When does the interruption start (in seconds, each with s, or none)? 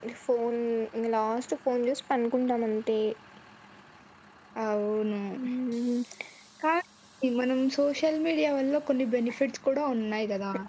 none